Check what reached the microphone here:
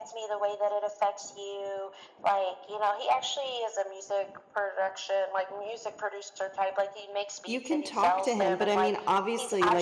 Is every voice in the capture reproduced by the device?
No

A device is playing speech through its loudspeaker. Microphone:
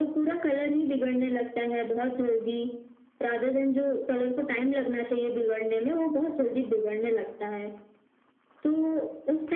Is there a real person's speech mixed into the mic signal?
No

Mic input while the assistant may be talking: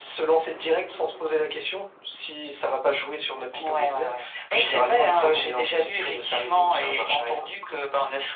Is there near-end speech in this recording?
No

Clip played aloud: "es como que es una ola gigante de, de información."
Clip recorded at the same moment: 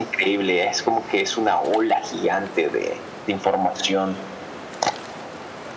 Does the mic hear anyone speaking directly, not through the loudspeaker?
No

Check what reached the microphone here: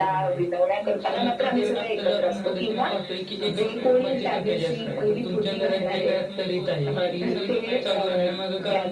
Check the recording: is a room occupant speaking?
Yes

